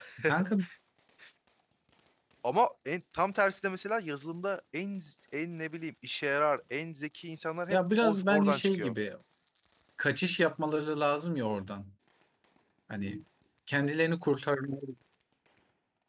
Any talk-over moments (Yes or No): Yes